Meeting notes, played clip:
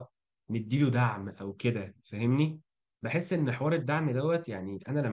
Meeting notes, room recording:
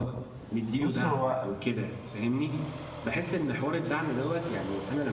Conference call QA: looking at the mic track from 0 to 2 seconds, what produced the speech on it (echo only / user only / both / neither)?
both